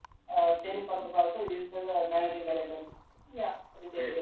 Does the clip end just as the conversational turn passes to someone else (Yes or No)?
Yes